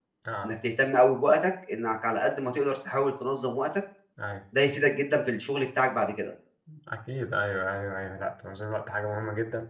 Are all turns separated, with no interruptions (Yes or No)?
Yes